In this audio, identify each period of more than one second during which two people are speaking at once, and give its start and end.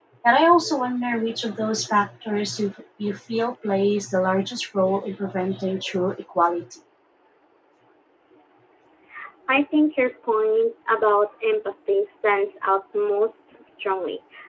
none

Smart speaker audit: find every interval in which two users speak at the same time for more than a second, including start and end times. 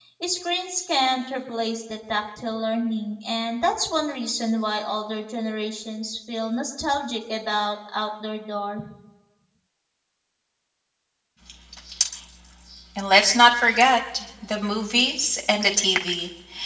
none

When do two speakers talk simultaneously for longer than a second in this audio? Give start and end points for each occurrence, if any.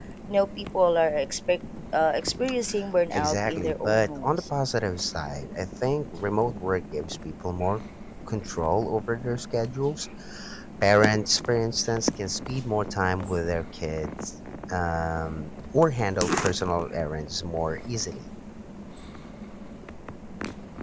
3.1-4.4

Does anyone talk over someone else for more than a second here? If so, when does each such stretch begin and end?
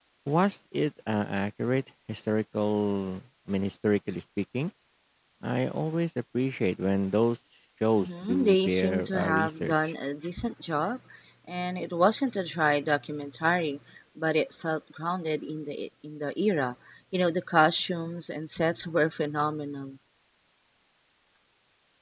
8.0-9.9

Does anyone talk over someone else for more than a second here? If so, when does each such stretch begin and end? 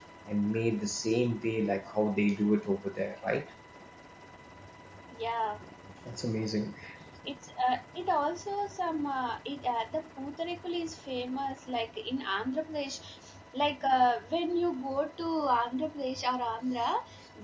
none

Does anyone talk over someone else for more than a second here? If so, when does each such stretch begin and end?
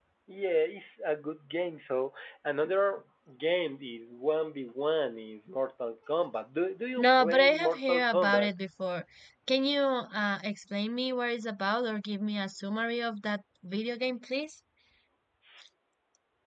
7.0-8.5

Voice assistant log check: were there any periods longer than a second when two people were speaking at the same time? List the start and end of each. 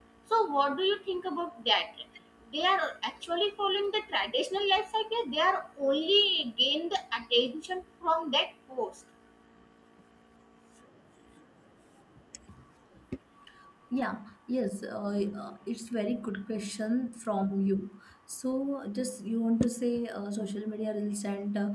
none

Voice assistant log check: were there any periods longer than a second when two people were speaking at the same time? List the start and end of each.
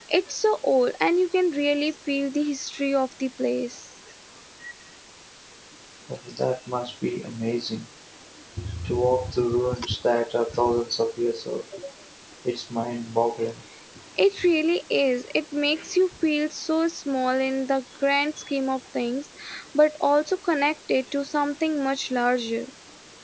none

